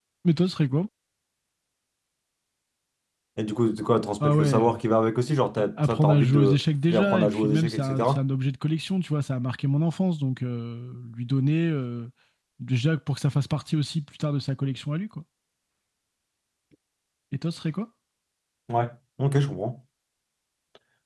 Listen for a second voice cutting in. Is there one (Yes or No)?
Yes